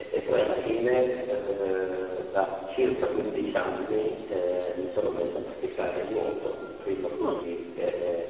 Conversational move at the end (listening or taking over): listening